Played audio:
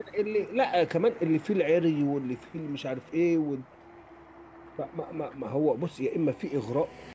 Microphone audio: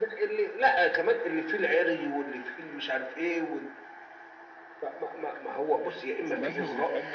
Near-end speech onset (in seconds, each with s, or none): 6.2 s